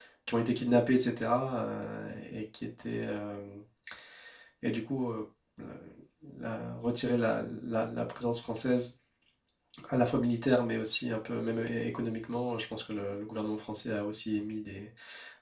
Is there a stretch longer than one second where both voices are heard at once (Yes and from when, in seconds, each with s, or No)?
No